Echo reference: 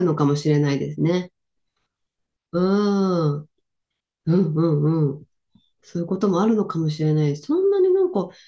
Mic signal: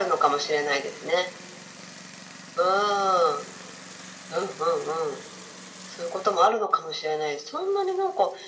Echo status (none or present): present